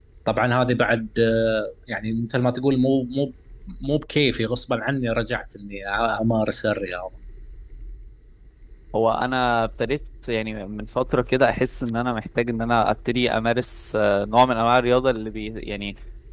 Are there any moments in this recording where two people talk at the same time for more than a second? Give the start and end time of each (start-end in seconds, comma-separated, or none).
none